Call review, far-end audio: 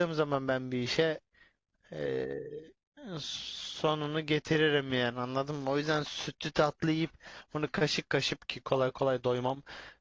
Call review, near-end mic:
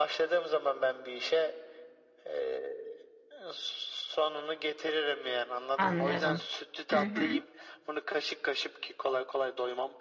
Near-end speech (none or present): present